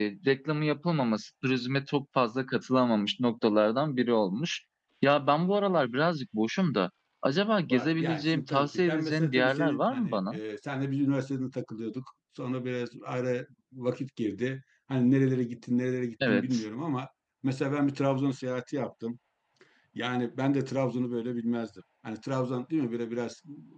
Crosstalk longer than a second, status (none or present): present